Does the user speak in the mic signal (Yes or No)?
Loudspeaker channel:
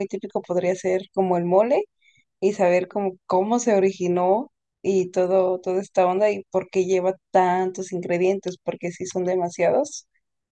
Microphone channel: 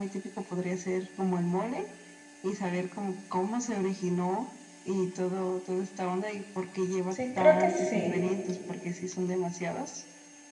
Yes